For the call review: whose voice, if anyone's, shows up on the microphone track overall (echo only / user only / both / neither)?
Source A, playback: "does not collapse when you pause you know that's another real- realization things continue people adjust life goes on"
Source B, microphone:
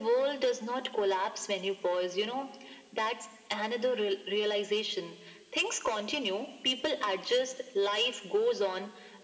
echo only